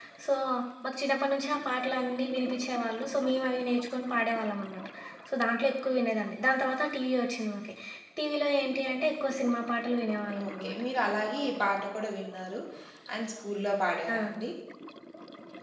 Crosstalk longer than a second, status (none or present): none